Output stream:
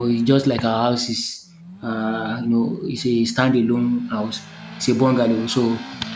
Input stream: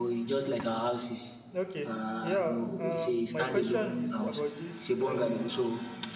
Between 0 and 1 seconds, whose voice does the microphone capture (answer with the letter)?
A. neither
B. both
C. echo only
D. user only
C